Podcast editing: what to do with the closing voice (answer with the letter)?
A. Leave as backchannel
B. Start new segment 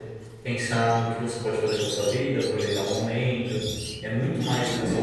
B